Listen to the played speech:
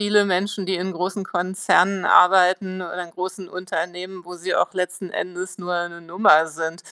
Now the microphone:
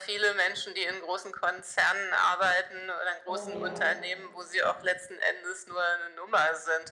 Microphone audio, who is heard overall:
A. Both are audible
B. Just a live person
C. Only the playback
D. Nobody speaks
A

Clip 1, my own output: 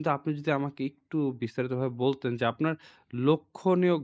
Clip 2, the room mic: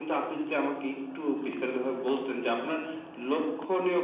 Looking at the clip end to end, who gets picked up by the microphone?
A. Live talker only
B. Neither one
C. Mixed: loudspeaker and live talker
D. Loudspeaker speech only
D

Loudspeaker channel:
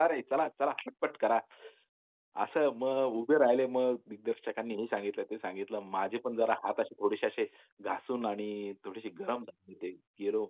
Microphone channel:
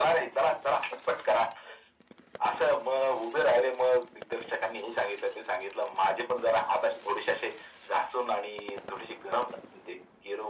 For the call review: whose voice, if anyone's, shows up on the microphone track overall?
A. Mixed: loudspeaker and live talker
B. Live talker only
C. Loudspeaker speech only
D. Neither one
C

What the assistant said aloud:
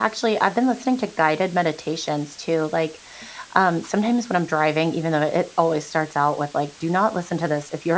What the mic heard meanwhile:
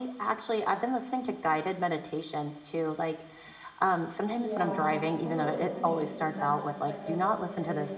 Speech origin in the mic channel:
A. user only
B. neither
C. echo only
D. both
D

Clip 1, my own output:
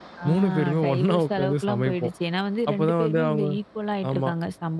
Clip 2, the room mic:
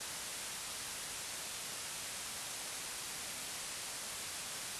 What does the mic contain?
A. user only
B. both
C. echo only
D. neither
D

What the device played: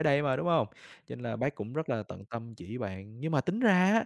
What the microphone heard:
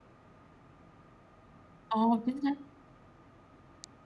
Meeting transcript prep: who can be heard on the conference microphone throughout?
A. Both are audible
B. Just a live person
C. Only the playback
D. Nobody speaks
B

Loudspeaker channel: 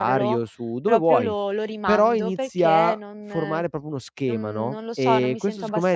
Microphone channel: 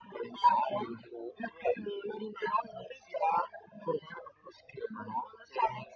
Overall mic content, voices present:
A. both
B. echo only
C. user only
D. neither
B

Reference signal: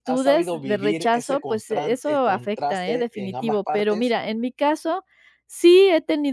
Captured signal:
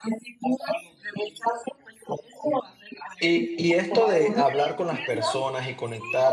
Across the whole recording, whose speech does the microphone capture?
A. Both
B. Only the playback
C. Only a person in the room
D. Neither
A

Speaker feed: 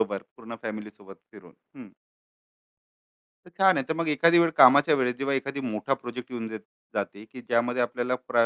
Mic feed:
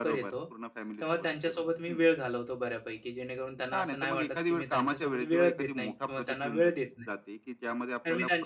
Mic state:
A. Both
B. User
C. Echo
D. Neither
A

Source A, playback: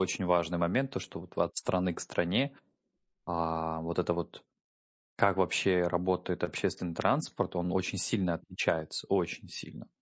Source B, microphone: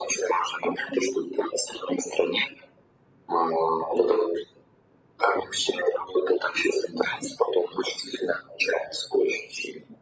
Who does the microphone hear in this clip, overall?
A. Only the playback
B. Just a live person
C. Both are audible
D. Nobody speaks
A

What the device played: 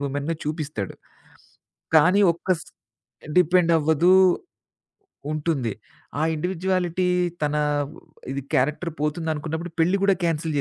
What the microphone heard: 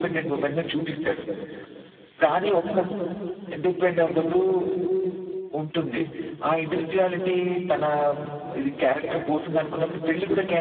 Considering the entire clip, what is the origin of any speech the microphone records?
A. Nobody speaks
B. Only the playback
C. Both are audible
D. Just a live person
B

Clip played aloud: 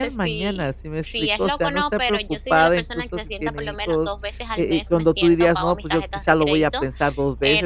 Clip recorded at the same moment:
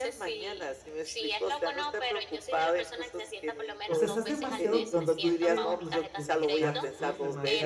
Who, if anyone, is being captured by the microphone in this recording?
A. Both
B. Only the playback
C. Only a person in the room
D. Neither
A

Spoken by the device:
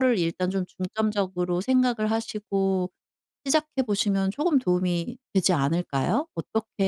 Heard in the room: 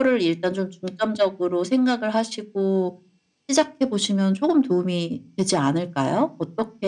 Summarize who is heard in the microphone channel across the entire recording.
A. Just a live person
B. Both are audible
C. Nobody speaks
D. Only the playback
D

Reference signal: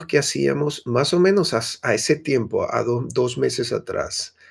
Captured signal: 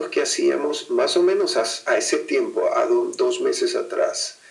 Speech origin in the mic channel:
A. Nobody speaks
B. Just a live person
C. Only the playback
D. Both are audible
C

